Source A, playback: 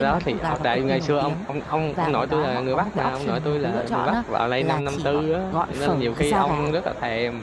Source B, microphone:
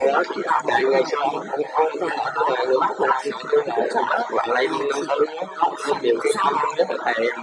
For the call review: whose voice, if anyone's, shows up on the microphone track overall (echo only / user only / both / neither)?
echo only